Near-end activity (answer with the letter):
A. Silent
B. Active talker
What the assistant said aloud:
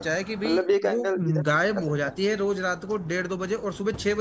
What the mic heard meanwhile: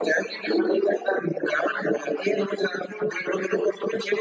A